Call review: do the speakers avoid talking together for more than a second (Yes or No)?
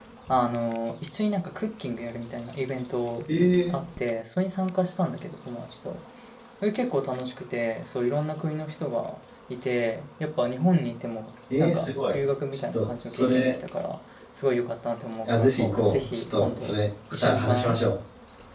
No